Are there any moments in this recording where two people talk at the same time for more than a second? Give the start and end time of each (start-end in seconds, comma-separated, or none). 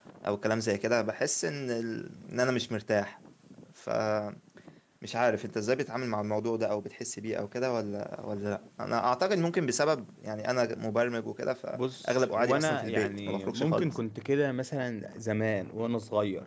11.7-13.9